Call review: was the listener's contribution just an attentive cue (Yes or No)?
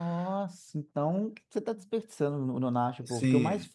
Yes